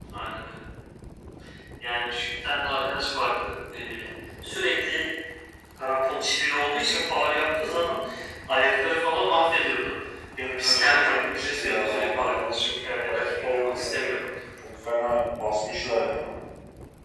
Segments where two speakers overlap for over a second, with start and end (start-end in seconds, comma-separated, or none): 10.5-14.0